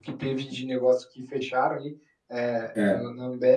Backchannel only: Yes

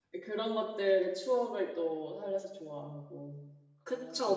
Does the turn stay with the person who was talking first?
No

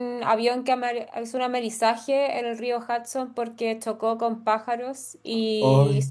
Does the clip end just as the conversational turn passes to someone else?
No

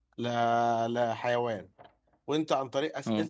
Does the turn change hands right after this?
No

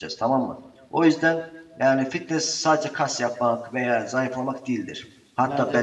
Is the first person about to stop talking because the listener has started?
No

